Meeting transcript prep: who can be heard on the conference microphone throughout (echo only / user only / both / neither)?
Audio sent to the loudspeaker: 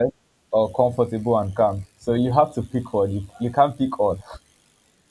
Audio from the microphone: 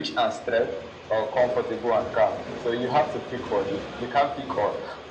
echo only